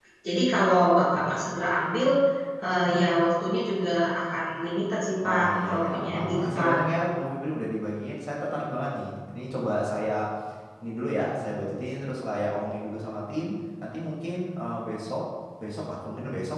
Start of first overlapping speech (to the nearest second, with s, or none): 5 s